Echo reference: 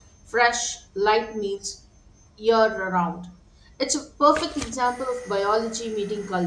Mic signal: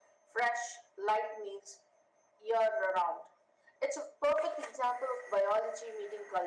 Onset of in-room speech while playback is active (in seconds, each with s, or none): none